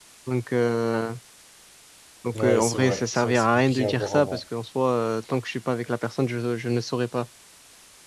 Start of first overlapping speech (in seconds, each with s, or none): 2.3 s